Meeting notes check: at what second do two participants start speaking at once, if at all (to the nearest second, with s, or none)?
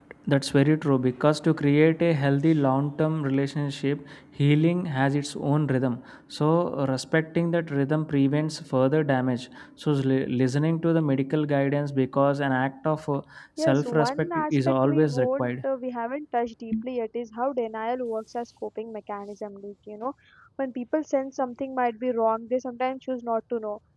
14 s